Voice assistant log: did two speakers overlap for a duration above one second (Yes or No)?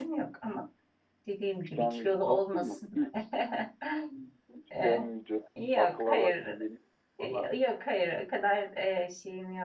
Yes